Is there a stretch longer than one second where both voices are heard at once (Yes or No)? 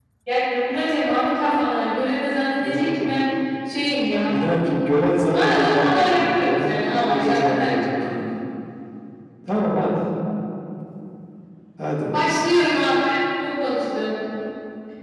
Yes